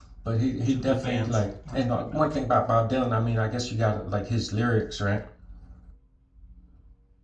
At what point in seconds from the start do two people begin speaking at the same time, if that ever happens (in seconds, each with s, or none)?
0.7 s